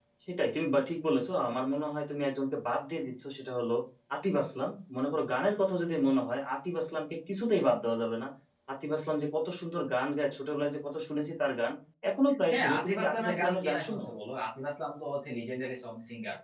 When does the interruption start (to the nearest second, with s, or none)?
13 s